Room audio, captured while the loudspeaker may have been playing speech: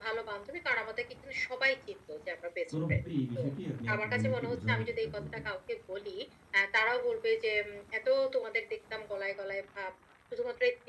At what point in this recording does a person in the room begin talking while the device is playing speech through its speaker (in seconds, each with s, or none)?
2.7 s